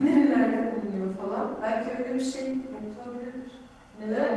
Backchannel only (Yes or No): No